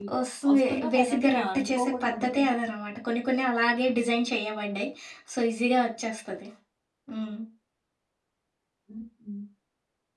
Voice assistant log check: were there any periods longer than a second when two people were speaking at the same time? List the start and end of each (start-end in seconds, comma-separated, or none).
0.5-2.5